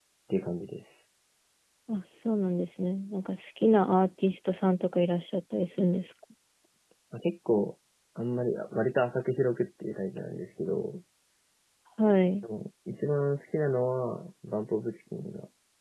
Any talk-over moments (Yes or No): No